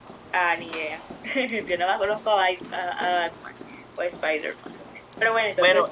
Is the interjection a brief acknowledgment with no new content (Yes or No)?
No